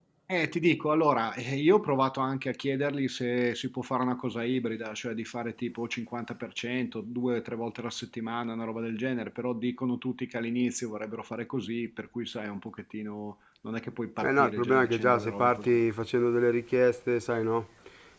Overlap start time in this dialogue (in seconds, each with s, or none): 14.2 s